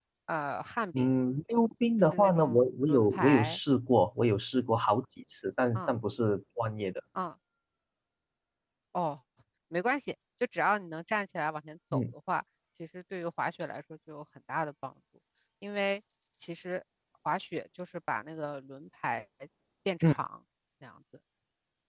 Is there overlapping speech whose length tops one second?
Yes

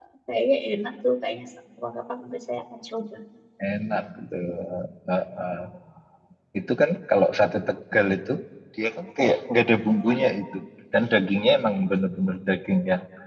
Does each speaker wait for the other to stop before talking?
Yes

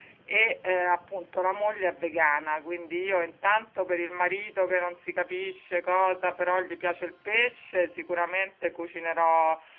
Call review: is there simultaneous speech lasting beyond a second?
No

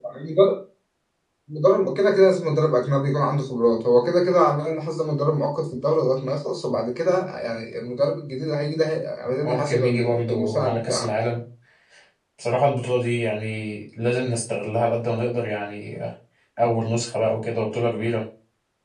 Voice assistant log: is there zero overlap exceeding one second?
No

